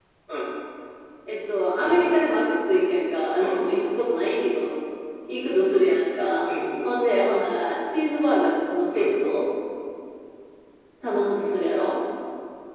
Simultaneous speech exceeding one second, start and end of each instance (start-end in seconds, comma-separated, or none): none